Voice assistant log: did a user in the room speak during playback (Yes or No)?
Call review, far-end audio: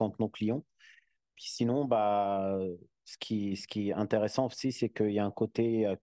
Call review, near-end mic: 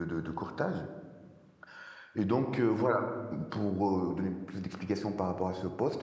Yes